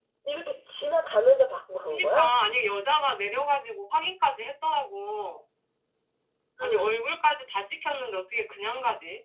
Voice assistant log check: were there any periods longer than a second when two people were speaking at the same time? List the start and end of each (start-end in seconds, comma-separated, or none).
none